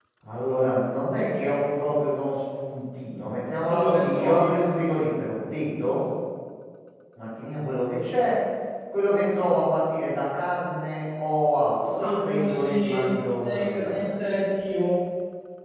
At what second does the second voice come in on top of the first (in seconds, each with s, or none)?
3.6 s